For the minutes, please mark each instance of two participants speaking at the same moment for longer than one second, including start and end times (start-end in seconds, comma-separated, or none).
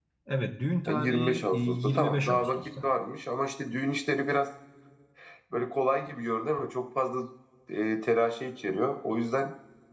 0.9-2.9